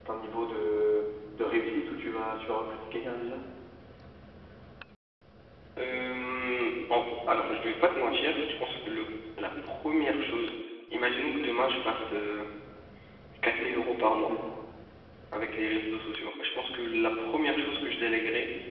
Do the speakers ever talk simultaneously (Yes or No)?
No